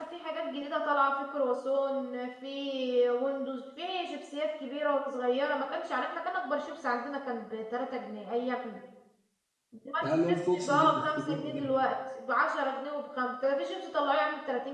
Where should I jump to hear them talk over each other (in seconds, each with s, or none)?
10.0 s